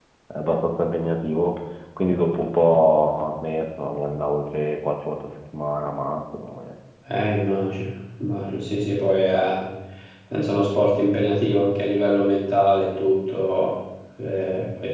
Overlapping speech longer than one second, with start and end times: none

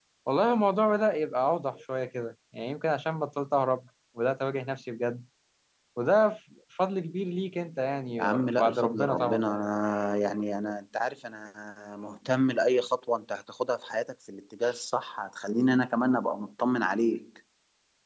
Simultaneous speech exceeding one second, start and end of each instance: 8.2-9.4

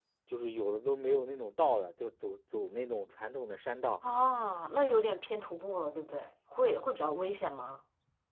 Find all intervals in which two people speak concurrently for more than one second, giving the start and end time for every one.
none

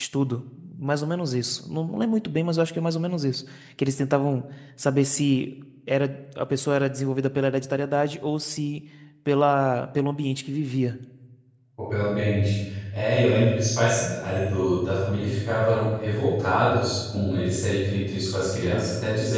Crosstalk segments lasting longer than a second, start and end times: none

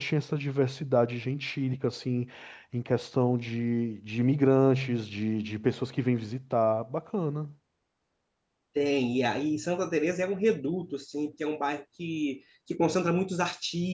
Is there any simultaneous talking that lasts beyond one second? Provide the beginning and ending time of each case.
none

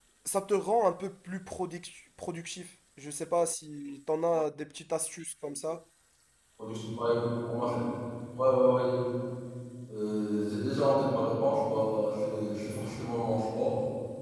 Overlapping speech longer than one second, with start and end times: none

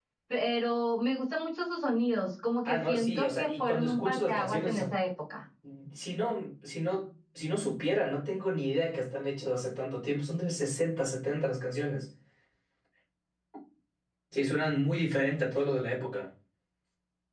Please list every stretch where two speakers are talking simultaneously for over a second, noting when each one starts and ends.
2.6-4.9

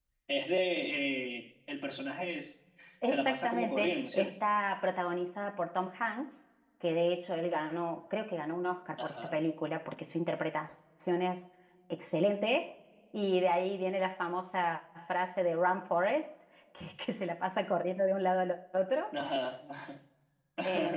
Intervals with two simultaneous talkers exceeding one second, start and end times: 3.1-4.3

